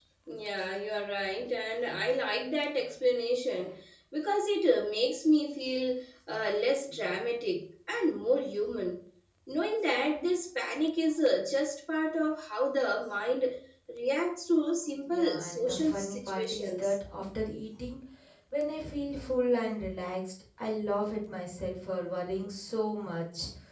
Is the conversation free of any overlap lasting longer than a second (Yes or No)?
No